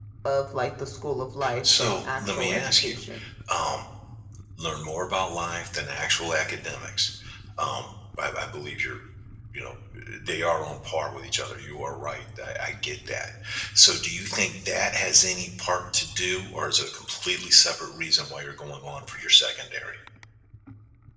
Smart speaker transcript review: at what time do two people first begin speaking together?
1.4 s

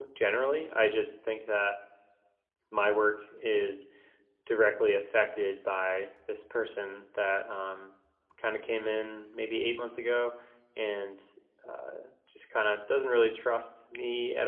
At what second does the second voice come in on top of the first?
none

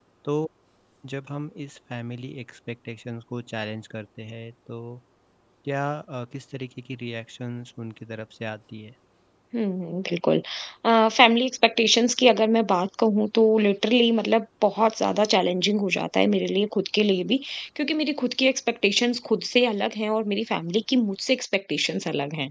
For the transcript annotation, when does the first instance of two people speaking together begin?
none

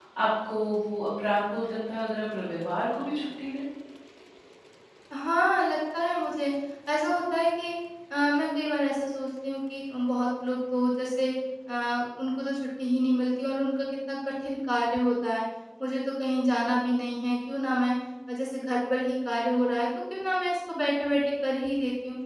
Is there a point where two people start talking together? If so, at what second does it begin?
none

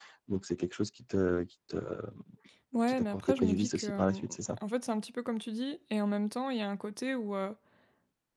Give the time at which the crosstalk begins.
2.9 s

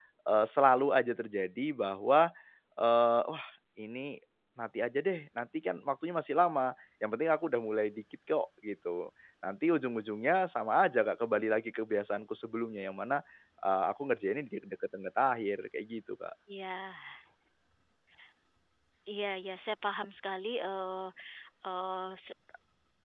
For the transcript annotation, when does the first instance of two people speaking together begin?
none

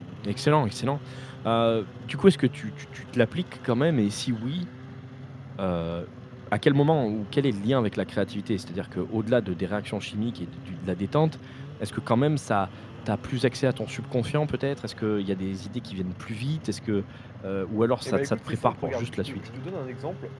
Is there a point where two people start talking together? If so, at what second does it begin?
18.0 s

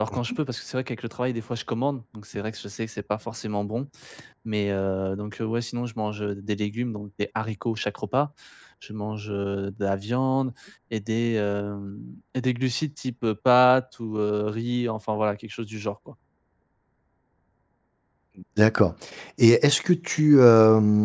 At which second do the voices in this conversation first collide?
none

